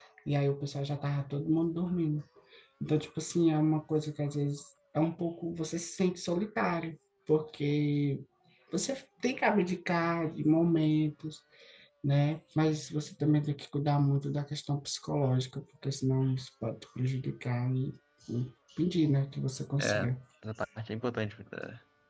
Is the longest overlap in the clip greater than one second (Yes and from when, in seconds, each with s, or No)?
No